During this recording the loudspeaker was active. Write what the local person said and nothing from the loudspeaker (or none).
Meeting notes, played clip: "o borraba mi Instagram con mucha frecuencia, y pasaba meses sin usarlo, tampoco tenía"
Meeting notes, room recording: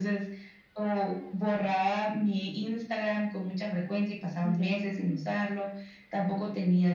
Ya.